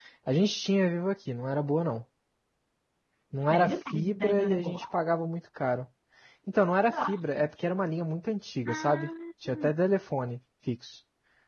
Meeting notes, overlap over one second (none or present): present